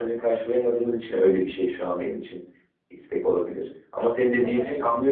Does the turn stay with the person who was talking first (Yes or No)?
Yes